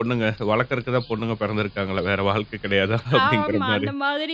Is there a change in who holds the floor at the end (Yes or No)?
Yes